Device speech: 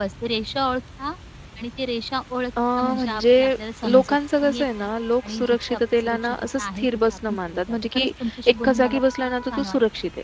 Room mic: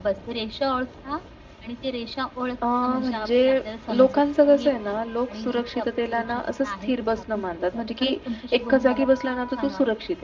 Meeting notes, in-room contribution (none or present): none